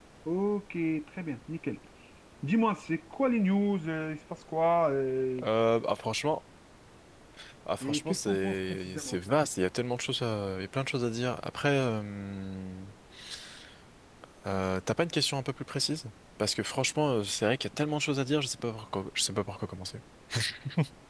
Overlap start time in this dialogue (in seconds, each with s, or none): 7.8 s